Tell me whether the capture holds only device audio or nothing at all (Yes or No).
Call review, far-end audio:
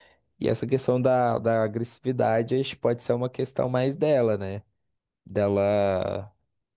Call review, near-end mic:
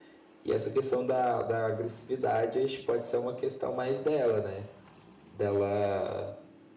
Yes